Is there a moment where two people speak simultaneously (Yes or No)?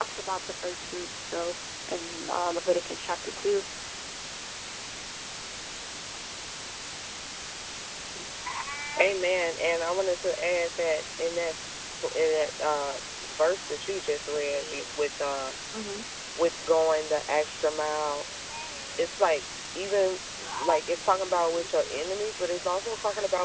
No